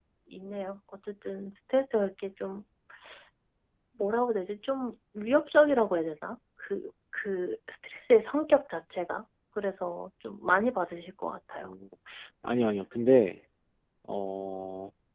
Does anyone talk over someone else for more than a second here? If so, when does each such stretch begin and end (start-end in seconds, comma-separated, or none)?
none